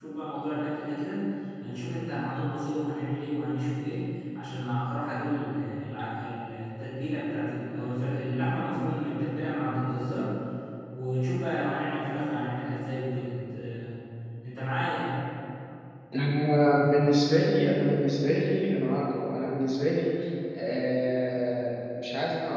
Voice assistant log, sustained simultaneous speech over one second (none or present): none